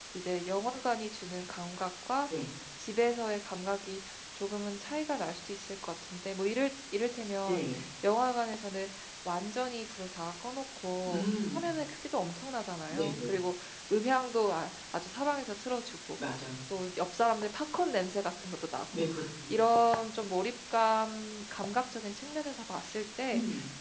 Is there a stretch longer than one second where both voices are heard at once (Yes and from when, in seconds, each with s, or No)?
No